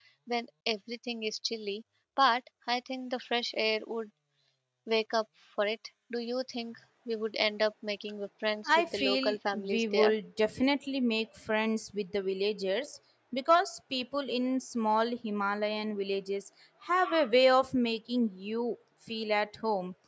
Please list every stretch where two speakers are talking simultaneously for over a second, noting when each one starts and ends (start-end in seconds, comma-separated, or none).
8.7-10.1